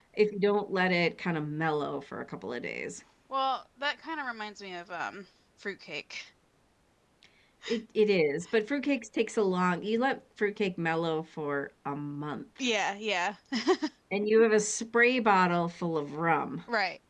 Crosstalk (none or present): none